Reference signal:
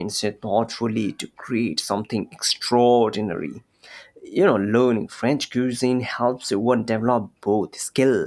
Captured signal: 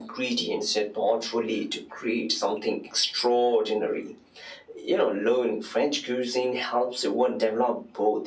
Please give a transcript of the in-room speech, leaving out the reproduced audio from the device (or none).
none